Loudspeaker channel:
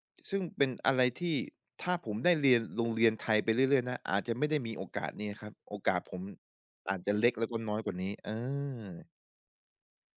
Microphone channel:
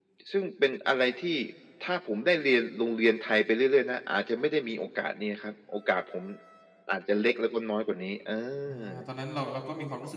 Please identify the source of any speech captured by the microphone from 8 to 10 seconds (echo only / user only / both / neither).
both